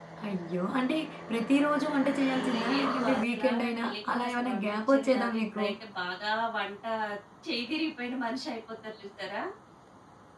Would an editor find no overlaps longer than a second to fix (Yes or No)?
No